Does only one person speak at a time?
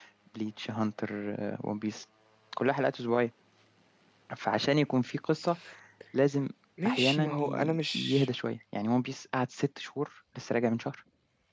No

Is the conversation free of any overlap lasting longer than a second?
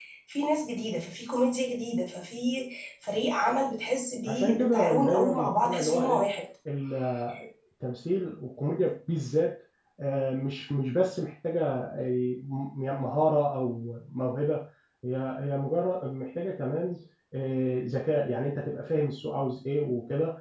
No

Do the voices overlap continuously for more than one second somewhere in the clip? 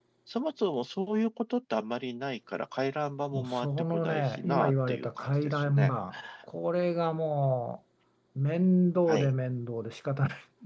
Yes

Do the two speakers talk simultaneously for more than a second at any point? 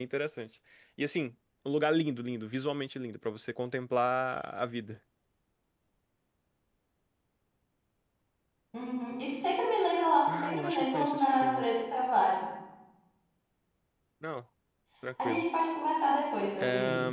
Yes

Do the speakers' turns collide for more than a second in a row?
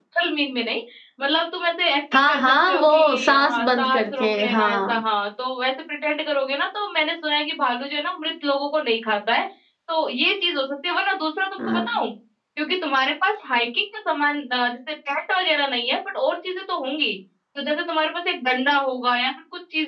Yes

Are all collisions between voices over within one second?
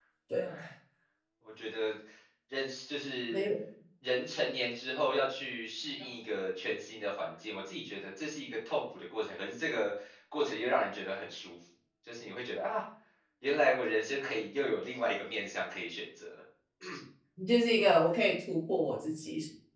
Yes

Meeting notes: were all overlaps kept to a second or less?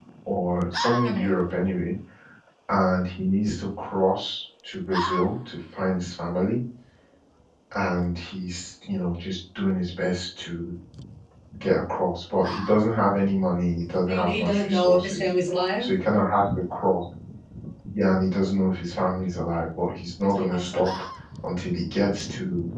No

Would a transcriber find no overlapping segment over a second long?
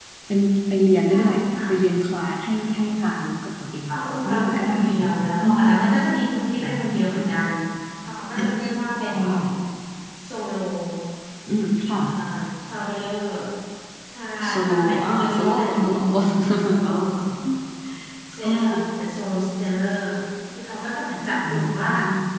No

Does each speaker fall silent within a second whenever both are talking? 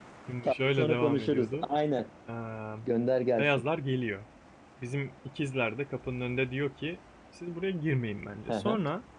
No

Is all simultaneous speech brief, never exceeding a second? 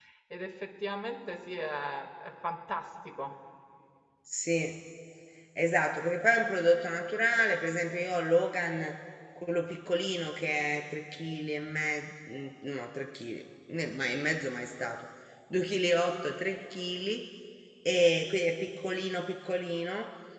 Yes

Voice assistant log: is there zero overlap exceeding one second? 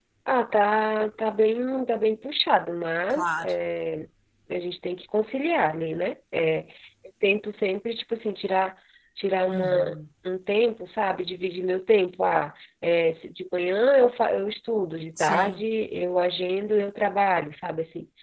Yes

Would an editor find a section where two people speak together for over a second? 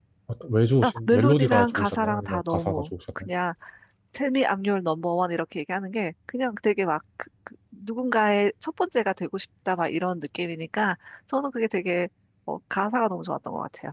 Yes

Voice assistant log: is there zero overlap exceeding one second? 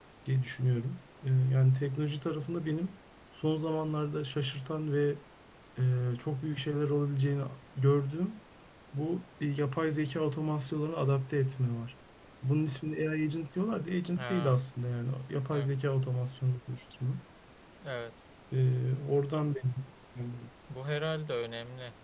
Yes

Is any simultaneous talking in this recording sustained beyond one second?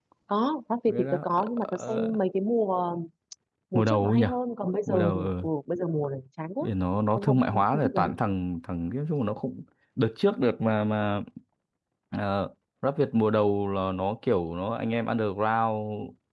Yes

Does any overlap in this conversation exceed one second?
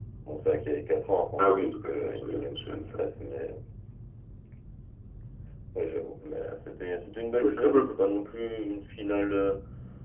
Yes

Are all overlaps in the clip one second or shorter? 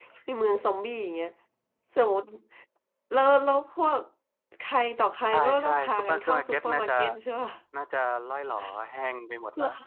No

